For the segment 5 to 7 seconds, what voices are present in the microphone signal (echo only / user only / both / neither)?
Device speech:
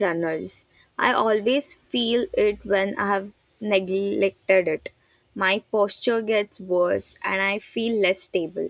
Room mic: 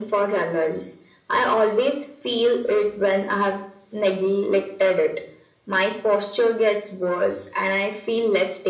echo only